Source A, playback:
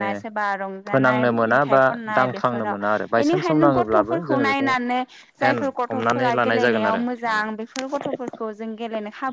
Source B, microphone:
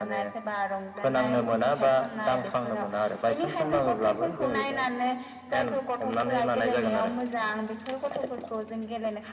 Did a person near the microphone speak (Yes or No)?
Yes